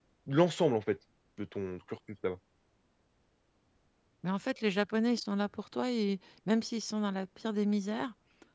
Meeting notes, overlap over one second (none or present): none